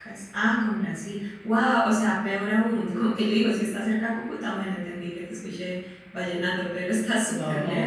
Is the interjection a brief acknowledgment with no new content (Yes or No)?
No